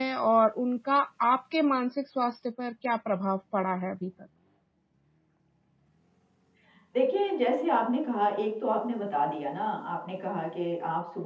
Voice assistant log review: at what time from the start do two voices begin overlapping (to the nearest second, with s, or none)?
none